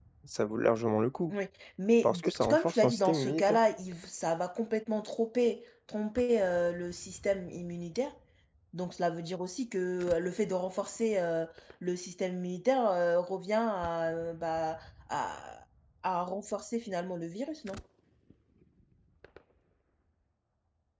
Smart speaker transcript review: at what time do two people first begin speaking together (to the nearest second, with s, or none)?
2 s